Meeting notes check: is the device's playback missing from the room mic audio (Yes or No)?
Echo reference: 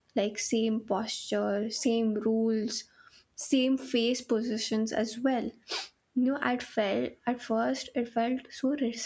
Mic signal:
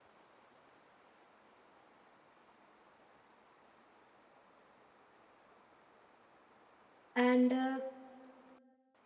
Yes